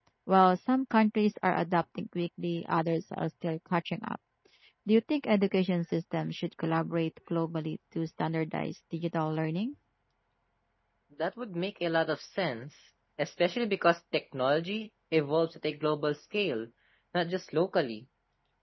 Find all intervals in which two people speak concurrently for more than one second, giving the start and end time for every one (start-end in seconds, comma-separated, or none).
none